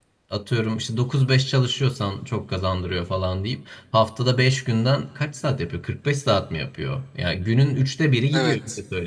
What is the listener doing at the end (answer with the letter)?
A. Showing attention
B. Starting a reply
A